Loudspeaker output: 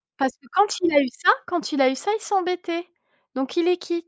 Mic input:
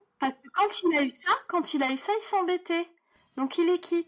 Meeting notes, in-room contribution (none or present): none